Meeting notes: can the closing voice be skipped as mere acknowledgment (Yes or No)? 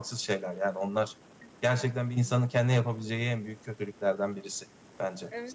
No